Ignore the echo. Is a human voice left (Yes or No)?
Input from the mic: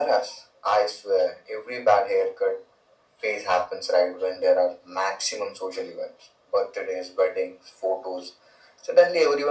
No